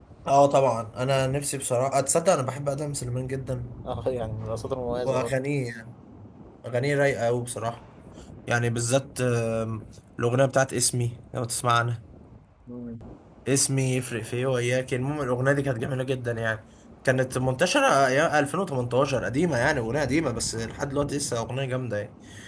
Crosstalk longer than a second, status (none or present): none